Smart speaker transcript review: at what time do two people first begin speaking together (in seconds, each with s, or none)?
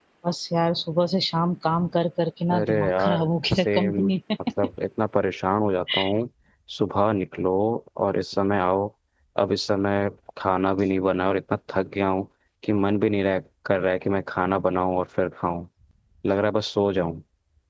2.5 s